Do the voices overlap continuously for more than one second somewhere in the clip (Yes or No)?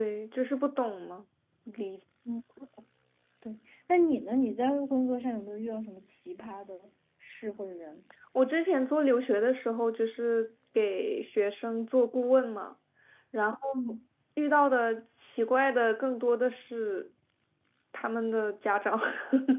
No